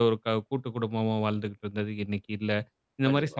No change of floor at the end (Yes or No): Yes